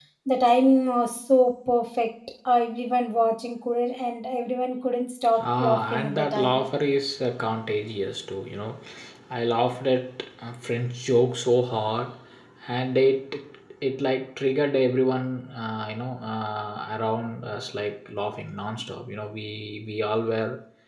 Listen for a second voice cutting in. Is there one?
Yes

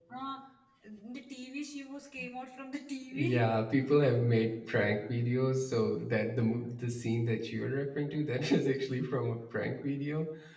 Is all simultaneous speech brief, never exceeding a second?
Yes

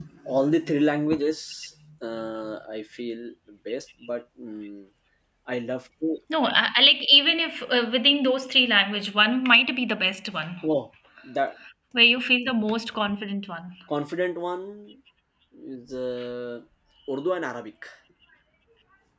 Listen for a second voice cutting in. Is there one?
No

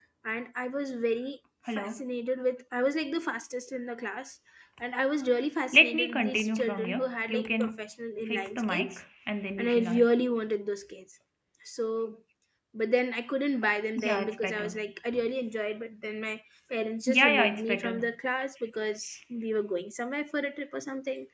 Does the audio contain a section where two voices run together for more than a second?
Yes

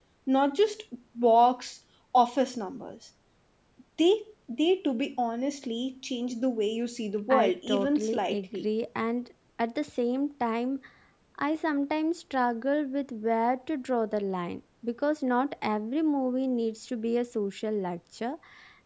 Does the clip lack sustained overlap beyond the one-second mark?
No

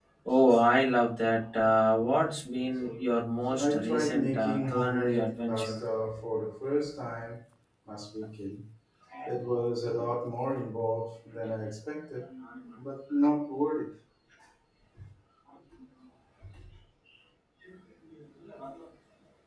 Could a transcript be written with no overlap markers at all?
No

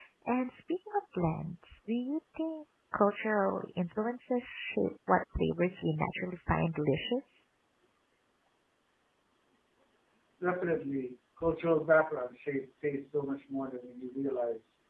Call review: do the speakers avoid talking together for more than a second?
Yes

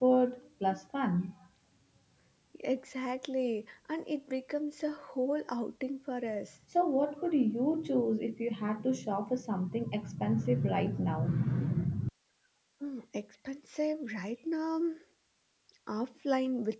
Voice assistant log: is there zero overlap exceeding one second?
Yes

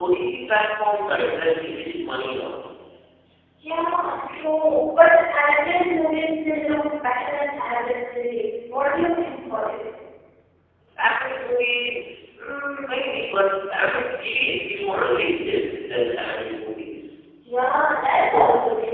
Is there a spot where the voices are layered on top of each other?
No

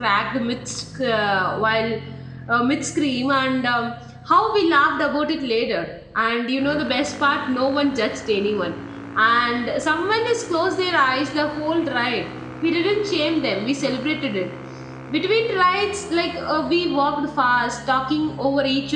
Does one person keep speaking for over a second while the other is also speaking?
No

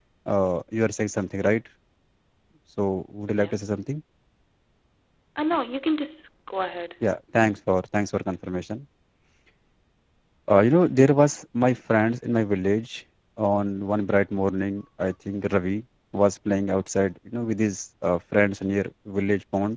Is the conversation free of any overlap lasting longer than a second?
Yes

